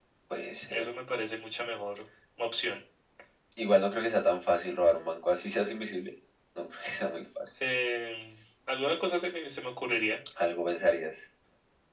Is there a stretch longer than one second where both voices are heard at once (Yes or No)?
No